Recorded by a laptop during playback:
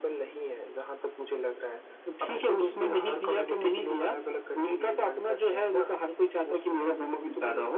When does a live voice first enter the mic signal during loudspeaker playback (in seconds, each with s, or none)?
none